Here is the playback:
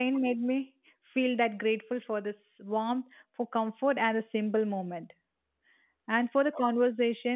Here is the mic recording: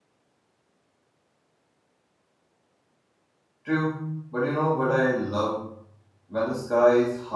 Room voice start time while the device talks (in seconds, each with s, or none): 3.6 s